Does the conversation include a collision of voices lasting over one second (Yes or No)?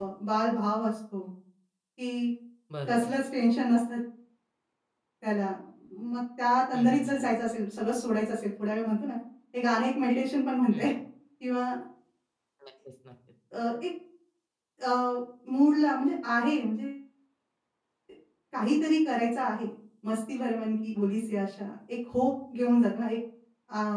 No